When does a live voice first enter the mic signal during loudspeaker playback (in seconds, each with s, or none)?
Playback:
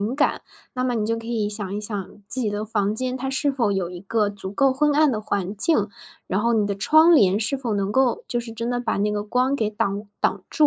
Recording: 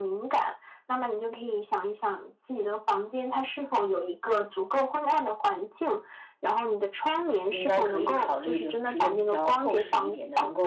7.5 s